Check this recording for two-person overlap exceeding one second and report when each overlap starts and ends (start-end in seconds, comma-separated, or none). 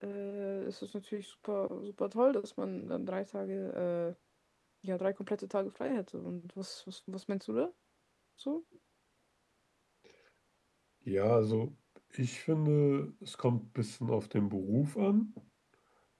none